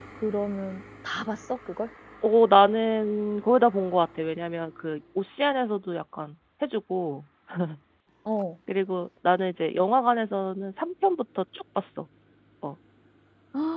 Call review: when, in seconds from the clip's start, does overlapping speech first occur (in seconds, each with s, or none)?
none